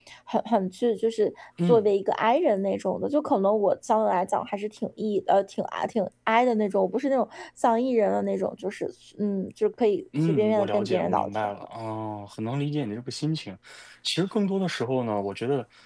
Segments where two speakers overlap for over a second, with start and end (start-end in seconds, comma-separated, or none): 10.3-11.5